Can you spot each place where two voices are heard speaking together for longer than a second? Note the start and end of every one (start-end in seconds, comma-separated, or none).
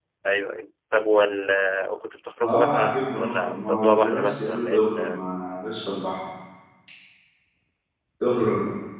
2.4-5.2